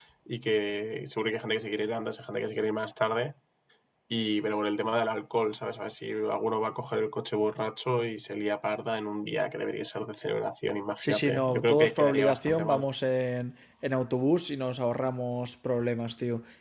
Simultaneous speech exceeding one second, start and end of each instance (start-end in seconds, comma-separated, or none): 11.0-12.8